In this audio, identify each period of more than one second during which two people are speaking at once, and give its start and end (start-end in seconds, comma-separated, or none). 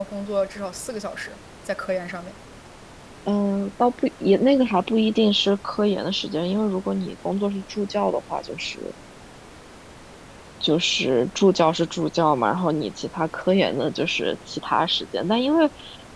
none